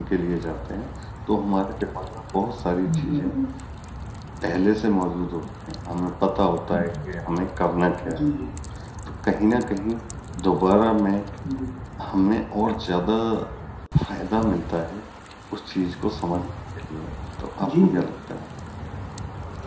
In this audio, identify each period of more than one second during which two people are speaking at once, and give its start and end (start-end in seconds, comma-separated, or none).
none